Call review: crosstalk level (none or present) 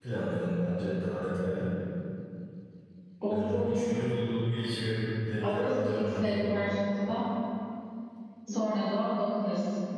present